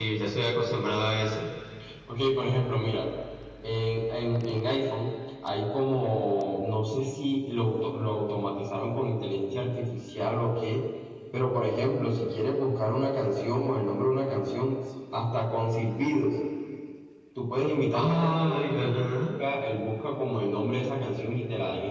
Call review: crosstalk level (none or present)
present